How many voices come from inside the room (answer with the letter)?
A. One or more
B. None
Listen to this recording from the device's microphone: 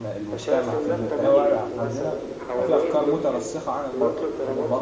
A